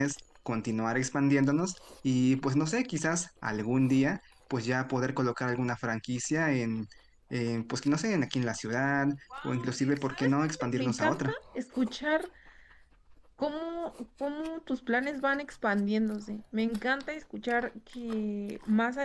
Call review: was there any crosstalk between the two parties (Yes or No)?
Yes